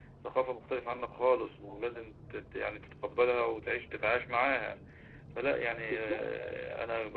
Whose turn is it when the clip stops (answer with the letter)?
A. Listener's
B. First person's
B